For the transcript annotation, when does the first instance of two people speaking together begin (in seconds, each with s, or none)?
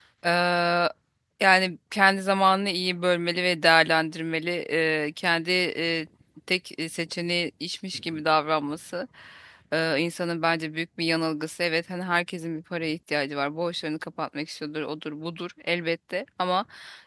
none